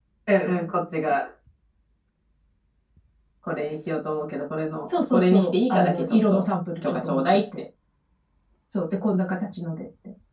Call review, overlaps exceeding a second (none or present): present